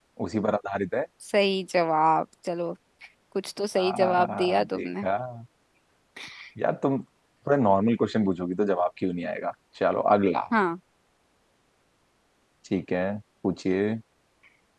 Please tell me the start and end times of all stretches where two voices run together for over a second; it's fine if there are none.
3.8-5.1

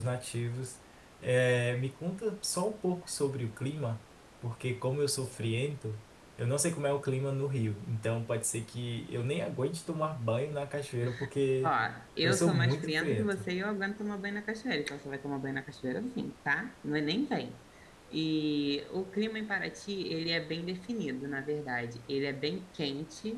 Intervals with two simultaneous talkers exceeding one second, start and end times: 12.2-13.5

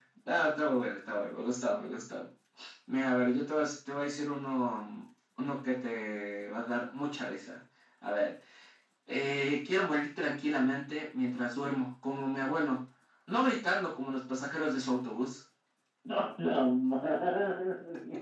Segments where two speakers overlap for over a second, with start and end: none

